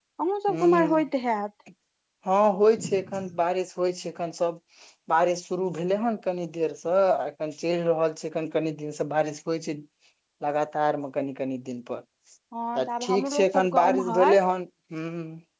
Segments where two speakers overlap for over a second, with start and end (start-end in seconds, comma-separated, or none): 12.8-14.4